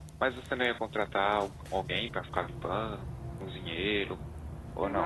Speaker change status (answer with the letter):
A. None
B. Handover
B